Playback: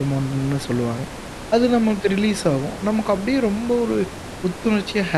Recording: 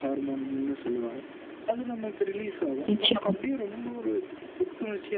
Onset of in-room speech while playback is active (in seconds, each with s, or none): 2.9 s